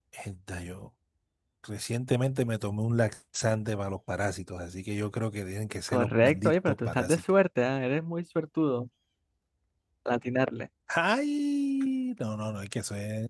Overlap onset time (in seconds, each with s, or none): 5.9 s